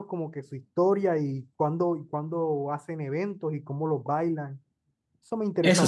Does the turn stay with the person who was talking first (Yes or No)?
No